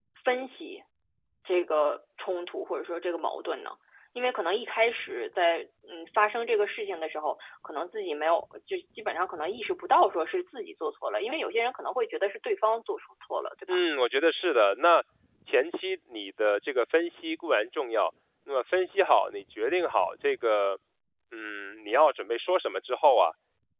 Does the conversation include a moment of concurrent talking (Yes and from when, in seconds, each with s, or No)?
No